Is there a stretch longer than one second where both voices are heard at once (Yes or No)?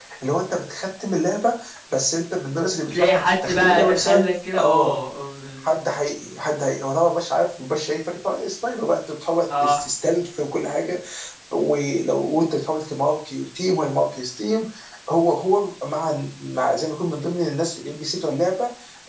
Yes